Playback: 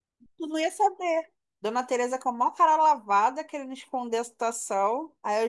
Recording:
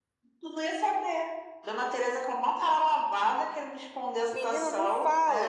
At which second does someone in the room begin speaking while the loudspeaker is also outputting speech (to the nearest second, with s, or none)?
4 s